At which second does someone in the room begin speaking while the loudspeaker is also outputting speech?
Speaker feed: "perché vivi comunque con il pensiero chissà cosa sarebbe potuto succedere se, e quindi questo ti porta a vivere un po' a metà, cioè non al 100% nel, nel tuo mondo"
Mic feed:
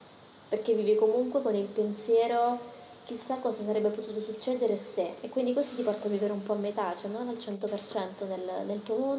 none

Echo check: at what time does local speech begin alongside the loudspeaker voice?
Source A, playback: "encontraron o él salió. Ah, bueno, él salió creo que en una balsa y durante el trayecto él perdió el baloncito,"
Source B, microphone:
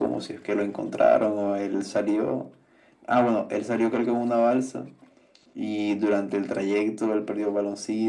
none

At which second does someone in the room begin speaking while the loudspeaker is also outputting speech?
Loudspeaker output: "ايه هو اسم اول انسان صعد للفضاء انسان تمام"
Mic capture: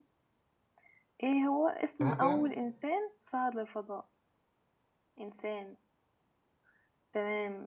2.0 s

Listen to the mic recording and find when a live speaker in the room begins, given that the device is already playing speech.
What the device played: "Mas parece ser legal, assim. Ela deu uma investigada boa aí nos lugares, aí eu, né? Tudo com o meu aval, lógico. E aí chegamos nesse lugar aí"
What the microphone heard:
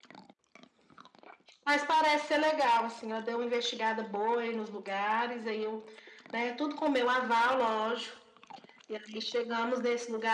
none

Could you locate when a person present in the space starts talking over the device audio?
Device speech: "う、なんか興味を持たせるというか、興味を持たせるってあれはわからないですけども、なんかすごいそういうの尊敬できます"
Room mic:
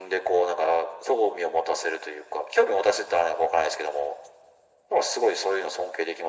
none

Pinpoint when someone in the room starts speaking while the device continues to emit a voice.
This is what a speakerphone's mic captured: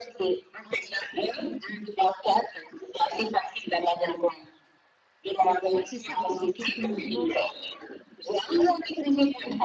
5.7 s

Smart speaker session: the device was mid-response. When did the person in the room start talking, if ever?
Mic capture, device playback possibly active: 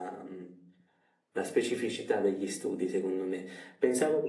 none

